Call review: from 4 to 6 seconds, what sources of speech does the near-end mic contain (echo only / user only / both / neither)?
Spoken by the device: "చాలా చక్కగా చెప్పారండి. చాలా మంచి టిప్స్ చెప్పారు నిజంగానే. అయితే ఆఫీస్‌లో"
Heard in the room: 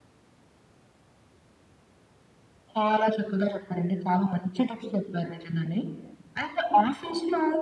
echo only